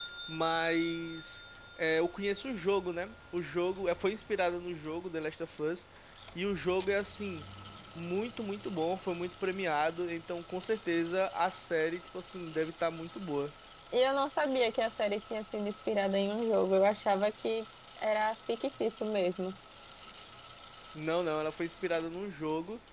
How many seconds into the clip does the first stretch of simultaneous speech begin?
none

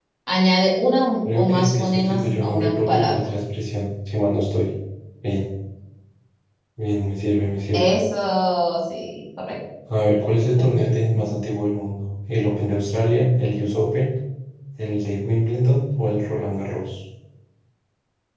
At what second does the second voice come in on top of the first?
1.2 s

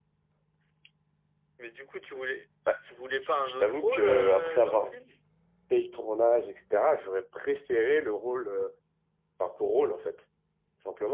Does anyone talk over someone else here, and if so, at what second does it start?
3.4 s

